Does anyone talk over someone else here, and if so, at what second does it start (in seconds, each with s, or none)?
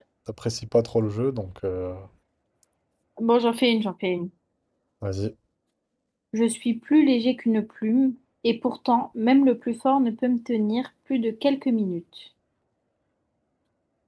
none